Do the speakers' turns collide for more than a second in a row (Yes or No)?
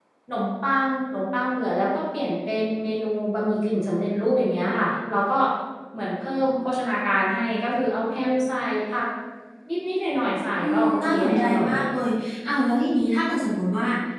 Yes